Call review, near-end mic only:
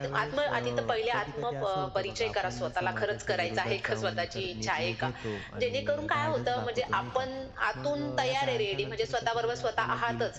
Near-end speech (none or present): present